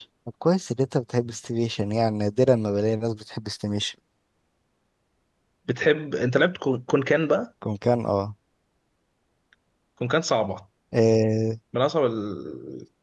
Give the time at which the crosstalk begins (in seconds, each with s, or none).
none